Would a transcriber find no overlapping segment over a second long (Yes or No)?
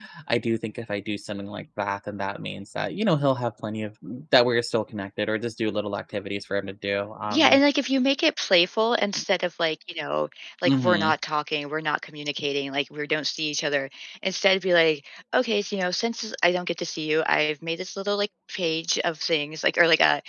Yes